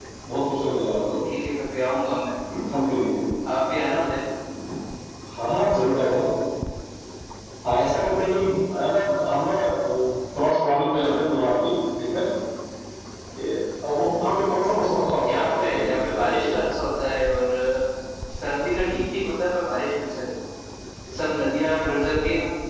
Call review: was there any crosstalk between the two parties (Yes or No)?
Yes